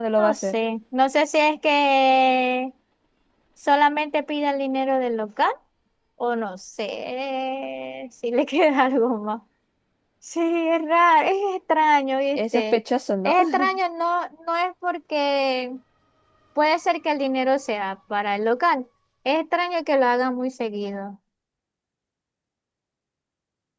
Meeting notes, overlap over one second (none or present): none